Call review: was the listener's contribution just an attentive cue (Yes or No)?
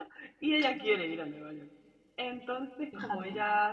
Yes